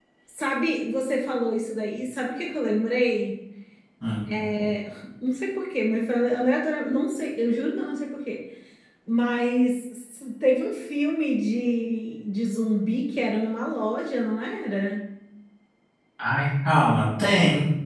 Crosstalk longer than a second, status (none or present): none